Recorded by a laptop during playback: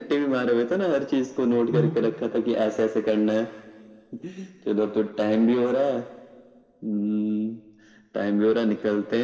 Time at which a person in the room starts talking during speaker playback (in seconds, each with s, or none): 1.7 s